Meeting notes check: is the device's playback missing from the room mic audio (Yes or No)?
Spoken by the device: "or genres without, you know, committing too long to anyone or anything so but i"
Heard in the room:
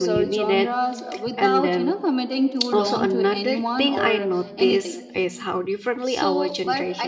No